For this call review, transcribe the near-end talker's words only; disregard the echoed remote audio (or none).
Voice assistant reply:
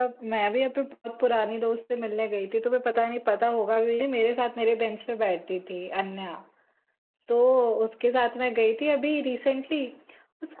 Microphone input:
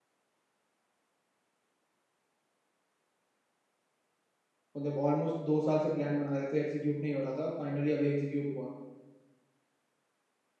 मतलब ऑलमोस्ट दो साल से प्लान बना रहे थे एग्जीक्यूट नहीं हो रहा था फाइनली अभी एग्जीक्यूट हुआ